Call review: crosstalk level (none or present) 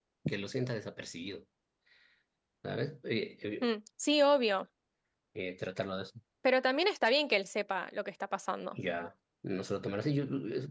none